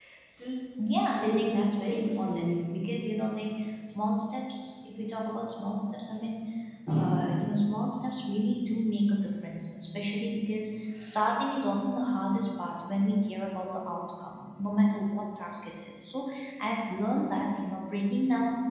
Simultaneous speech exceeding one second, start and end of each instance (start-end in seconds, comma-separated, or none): 1.2-2.6